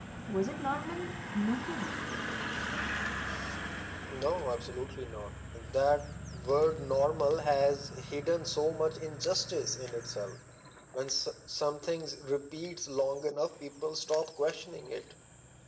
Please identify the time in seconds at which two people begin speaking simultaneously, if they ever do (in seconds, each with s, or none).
none